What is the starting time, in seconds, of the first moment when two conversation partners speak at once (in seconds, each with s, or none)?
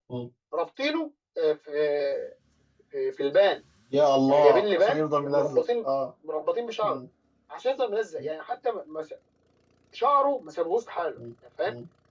4.3 s